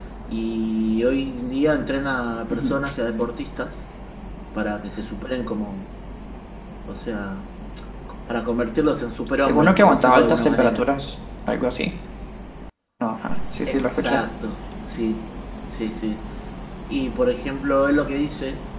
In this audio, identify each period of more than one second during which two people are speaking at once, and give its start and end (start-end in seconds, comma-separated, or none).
9.5-10.8